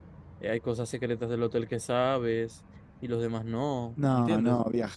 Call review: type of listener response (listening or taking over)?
taking over